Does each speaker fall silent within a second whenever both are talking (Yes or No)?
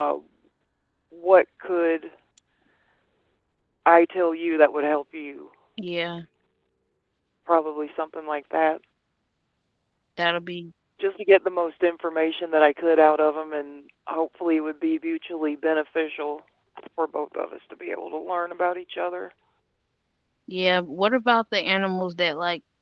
Yes